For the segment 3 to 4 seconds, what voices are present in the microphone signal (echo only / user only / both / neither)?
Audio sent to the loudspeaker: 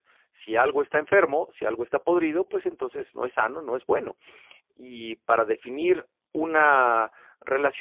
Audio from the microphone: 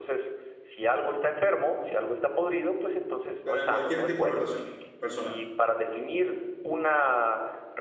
both